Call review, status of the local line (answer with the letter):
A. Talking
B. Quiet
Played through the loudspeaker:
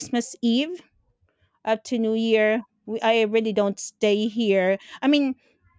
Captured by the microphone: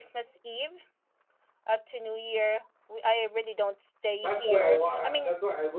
A